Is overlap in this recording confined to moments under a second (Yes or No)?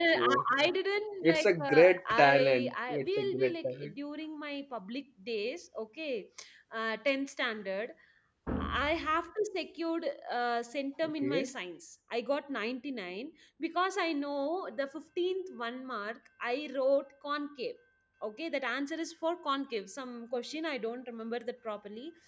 No